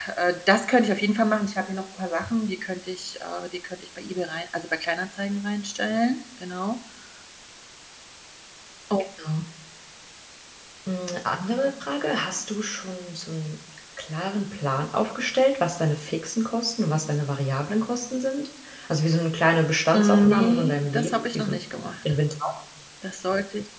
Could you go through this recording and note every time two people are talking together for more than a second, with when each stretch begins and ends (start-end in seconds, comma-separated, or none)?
19.9-21.6